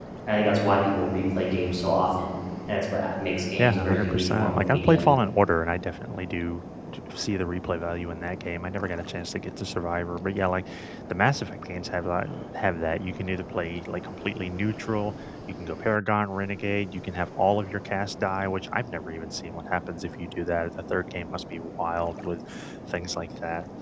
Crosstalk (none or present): present